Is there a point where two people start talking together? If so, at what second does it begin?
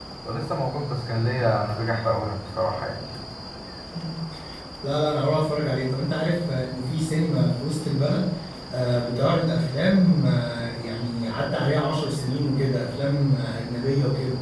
none

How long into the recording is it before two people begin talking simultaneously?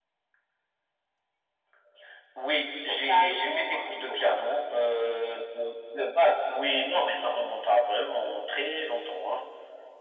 3 s

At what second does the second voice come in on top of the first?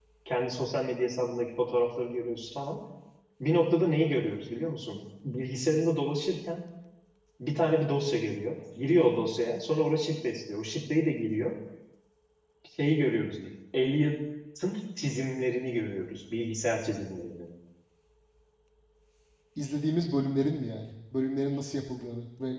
none

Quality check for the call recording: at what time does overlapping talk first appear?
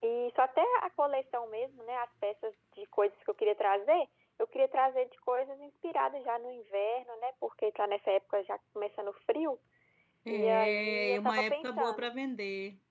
10 s

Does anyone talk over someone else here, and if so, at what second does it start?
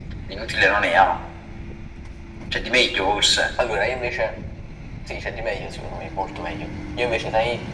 none

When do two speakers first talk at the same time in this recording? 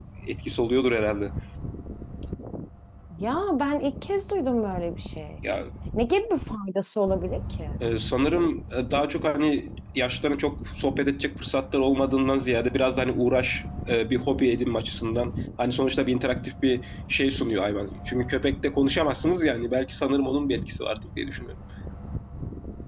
none

